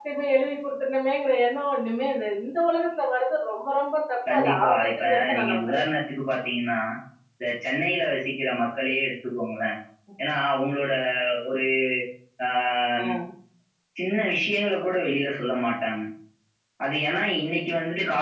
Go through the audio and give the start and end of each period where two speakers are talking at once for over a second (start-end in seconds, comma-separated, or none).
4.3-5.9